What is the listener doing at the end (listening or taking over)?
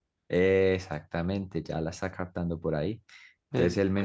listening